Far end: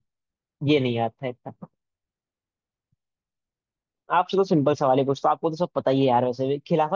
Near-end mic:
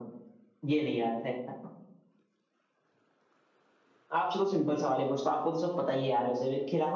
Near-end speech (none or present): none